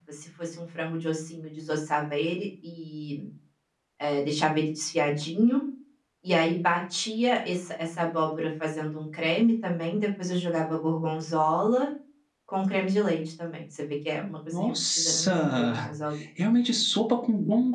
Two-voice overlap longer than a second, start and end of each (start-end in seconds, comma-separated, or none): 14.6-15.9